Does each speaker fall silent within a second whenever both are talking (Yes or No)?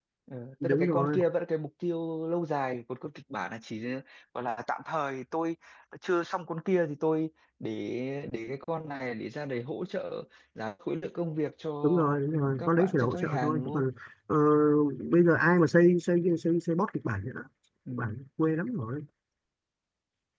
No